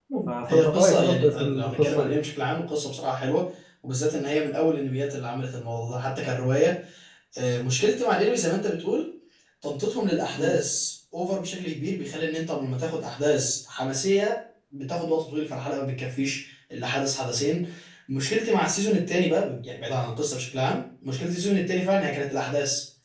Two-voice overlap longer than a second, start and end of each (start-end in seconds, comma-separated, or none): 0.5-2.1